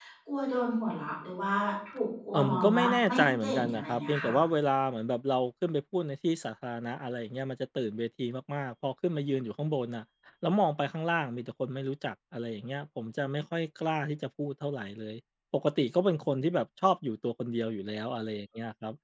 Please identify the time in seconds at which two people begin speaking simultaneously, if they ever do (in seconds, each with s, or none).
2.4 s